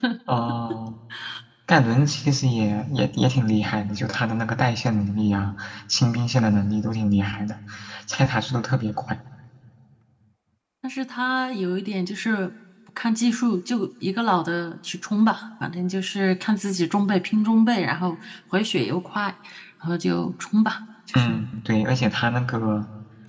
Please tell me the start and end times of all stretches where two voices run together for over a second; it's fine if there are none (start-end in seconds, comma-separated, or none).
none